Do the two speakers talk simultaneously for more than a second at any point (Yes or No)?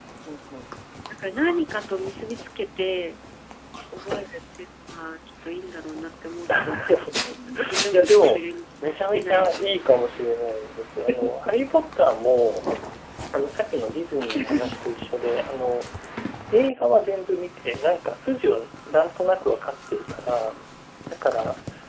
Yes